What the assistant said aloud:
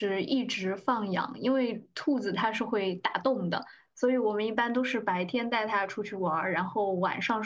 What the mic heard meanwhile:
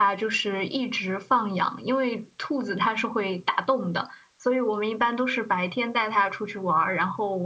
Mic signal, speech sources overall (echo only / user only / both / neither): echo only